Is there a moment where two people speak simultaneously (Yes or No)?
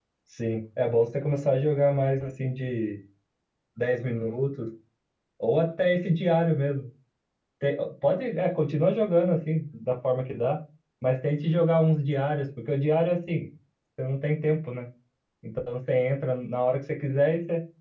No